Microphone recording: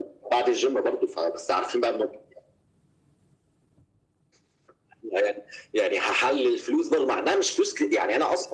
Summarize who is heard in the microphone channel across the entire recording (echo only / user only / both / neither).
echo only